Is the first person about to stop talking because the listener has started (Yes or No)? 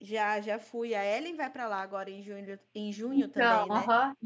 Yes